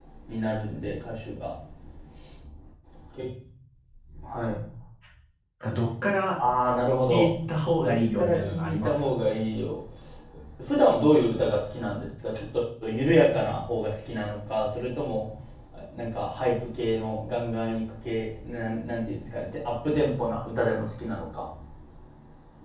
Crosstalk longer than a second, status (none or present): present